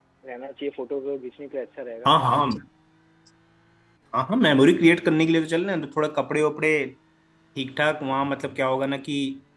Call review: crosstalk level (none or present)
none